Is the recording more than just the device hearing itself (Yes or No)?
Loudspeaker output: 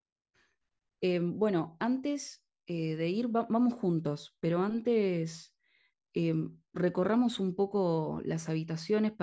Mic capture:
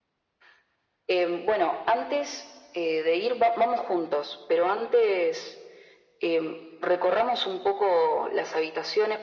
No